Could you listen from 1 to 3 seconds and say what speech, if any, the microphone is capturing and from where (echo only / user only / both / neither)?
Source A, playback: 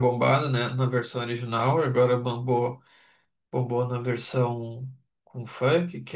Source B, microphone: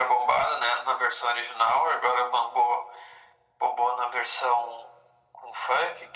echo only